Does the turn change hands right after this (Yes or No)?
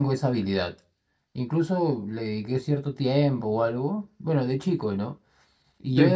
No